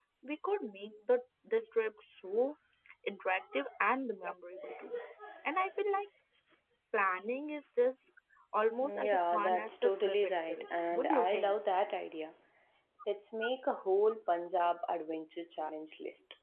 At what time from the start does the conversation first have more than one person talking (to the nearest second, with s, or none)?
9 s